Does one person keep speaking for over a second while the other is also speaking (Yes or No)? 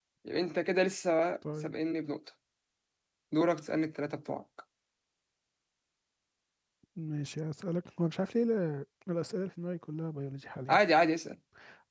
No